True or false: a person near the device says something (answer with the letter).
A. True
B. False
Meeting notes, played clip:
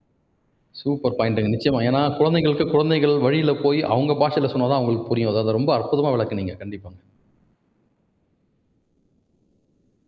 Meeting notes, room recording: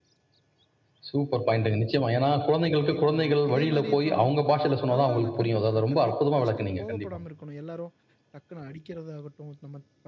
A